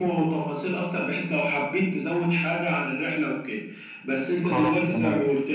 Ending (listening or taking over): listening